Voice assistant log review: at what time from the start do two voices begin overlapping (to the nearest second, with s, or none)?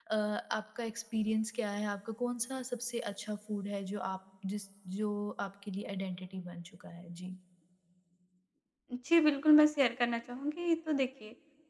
none